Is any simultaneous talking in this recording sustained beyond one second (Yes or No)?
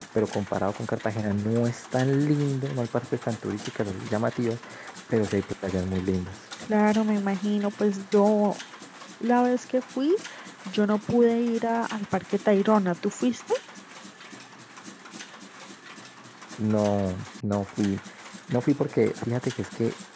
No